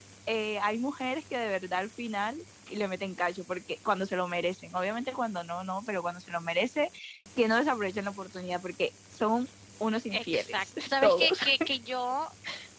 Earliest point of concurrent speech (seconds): 10 s

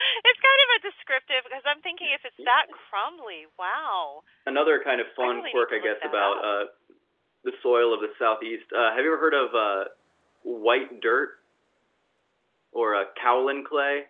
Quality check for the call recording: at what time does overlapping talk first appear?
5 s

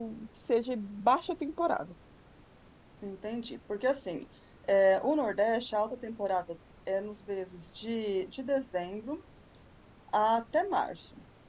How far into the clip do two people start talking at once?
none

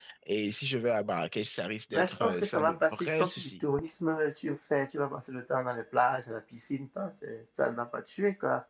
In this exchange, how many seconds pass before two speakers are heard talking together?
2 s

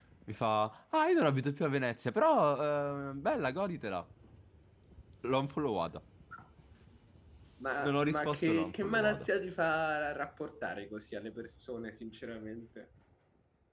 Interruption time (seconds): 8 s

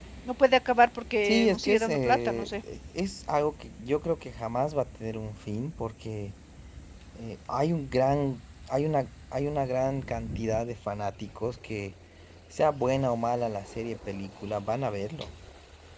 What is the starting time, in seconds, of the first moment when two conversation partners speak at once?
1 s

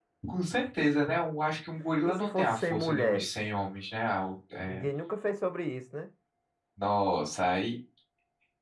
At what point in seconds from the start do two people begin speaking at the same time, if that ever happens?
2 s

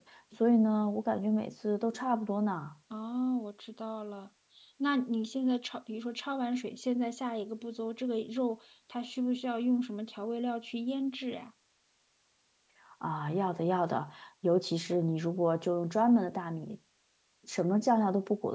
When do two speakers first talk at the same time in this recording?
none

